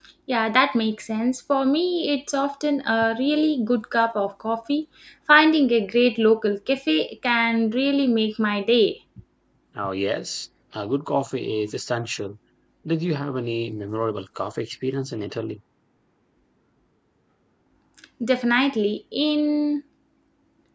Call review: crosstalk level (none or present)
none